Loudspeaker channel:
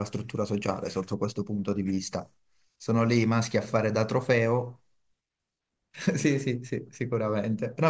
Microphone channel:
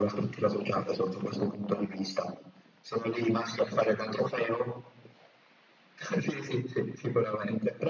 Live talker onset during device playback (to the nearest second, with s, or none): none